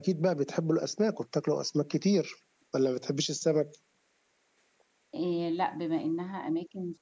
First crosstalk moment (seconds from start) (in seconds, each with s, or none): none